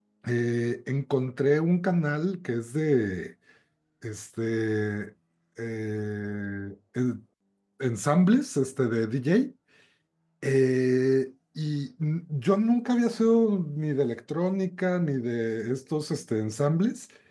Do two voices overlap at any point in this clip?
No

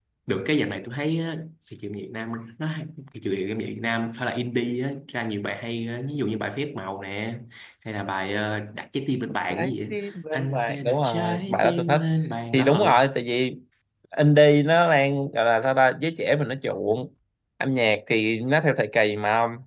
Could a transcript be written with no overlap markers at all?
No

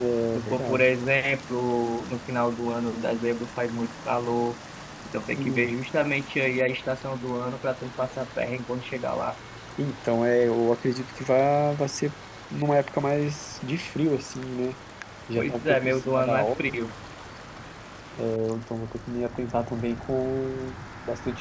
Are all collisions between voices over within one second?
No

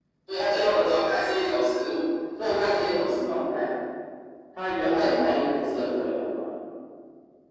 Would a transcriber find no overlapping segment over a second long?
No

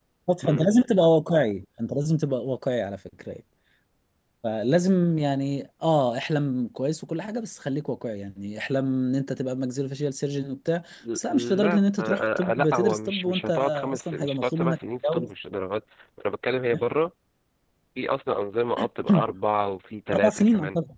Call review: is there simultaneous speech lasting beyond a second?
Yes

